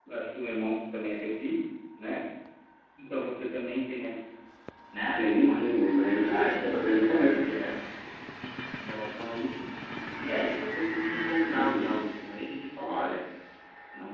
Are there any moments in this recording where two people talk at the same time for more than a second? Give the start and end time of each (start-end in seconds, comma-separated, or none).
5.2-7.4